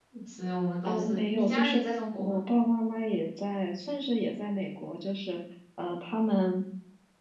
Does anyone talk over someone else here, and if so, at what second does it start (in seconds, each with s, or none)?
0.8 s